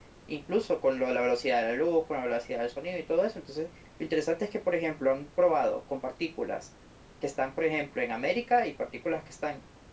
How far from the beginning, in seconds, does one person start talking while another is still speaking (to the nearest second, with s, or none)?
none